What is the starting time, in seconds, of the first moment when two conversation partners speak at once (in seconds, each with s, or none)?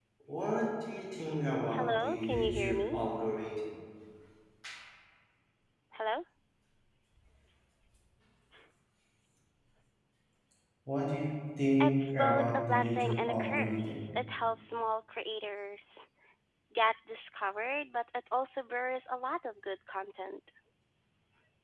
1.7 s